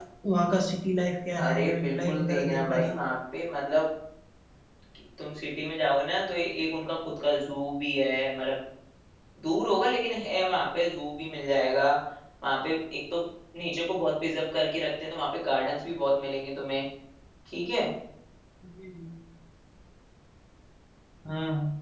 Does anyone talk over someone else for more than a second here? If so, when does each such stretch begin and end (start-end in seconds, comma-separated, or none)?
1.4-3.0